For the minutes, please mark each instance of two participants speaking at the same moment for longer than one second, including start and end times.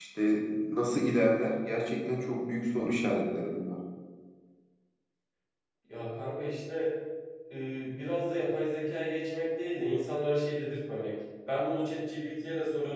none

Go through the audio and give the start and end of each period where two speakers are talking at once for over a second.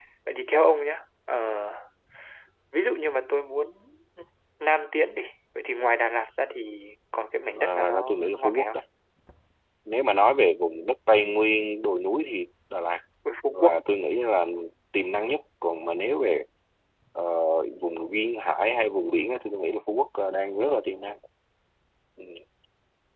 7.5-8.8

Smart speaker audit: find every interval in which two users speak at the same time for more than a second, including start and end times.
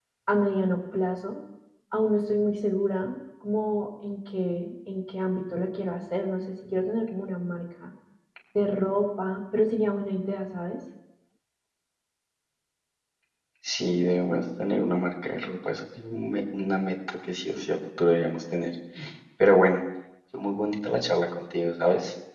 none

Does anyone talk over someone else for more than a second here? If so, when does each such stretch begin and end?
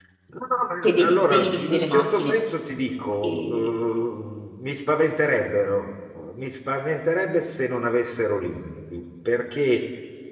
0.8-2.4

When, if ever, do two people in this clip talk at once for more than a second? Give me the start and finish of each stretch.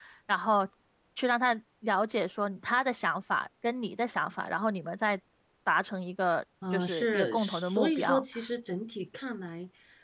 6.7-8.2

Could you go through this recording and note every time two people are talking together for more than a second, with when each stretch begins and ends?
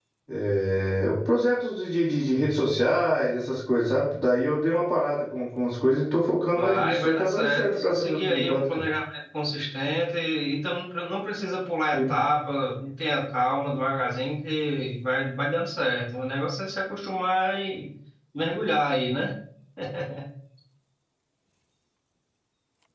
6.5-8.8

